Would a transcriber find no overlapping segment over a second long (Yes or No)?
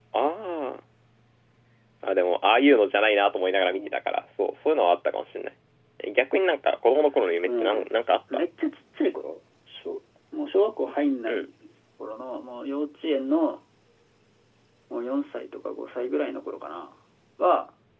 Yes